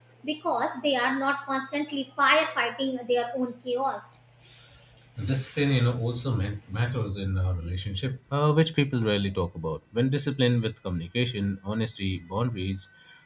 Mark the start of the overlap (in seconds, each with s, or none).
none